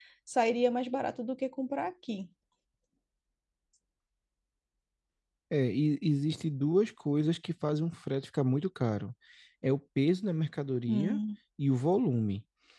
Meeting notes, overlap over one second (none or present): none